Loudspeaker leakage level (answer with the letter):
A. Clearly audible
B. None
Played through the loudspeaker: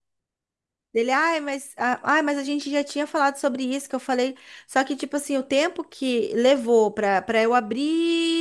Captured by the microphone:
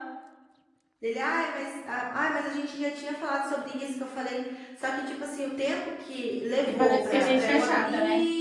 A